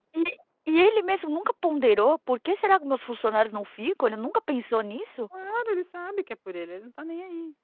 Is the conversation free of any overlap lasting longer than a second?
Yes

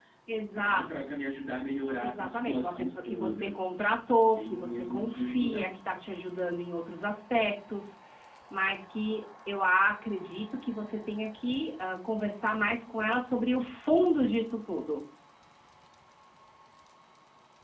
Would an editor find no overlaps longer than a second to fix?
No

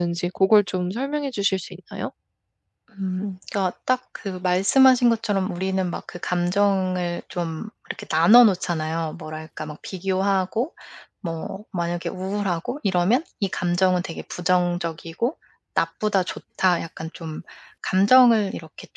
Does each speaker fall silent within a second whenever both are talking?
Yes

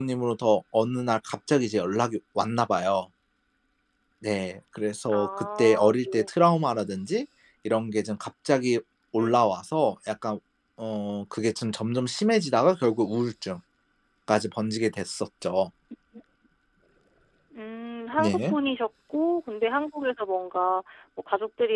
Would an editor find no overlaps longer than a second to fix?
No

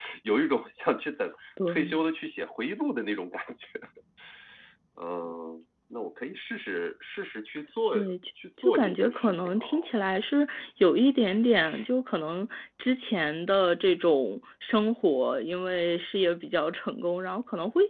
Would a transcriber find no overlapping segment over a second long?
No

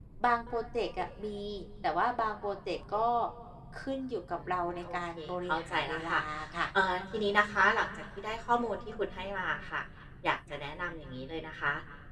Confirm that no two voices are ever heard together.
No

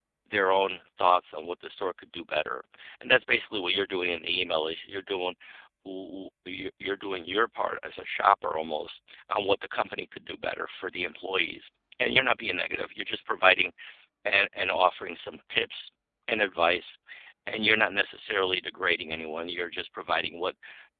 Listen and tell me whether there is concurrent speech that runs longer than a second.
No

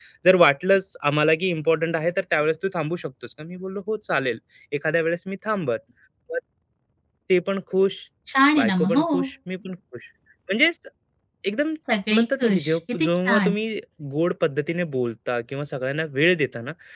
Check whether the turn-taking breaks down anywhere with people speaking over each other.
Yes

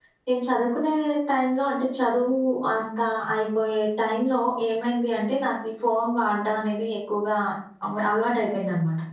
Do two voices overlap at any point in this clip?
No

